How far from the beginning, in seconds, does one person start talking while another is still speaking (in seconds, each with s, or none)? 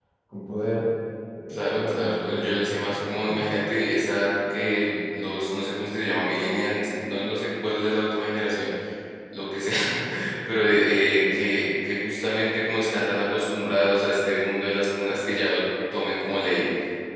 1.5 s